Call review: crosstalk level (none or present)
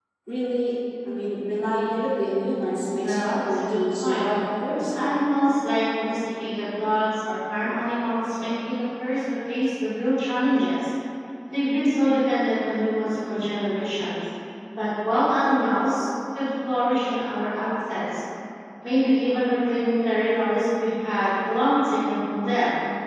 present